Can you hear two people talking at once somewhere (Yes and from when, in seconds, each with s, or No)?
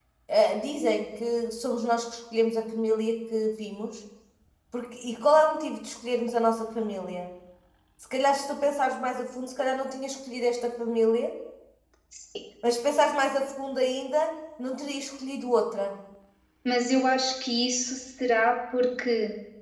No